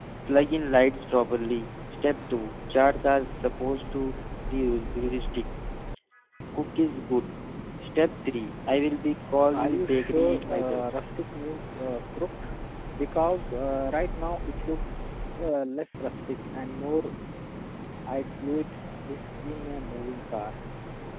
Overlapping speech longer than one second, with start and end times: 9.5-10.8

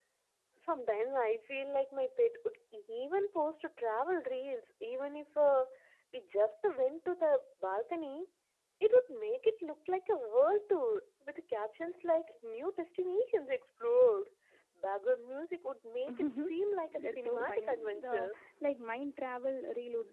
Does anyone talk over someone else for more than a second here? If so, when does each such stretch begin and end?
17.0-18.3

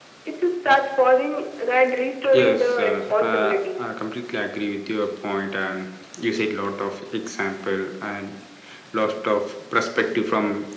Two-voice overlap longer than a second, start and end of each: 2.3-3.5

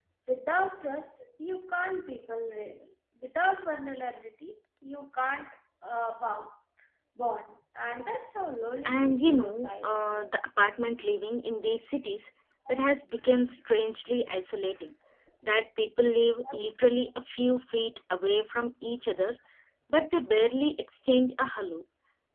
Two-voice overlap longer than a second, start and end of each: 8.9-10.2

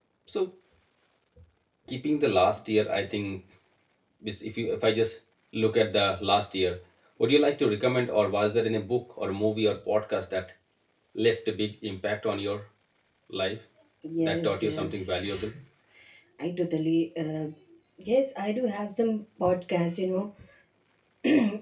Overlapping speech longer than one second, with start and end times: 14.2-15.4

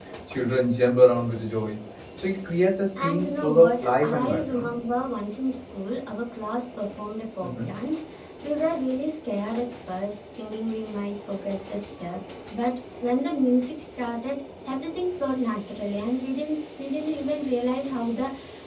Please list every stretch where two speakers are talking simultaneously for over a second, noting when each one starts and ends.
3.0-4.7

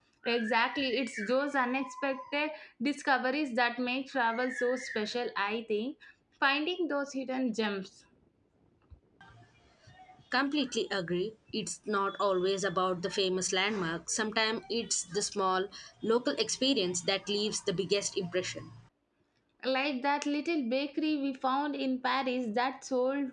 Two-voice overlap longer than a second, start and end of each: none

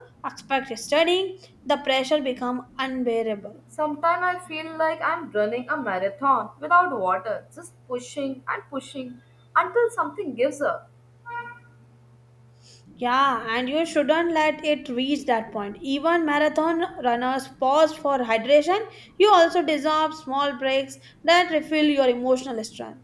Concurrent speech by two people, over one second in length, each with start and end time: none

